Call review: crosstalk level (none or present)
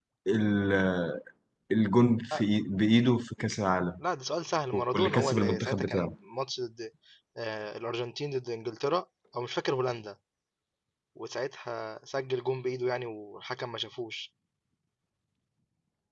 present